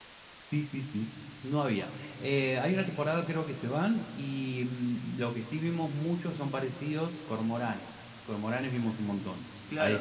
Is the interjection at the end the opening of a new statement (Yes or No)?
Yes